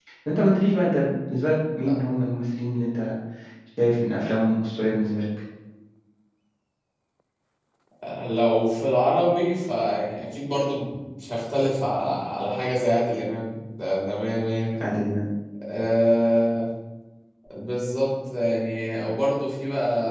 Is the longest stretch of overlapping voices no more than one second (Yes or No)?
Yes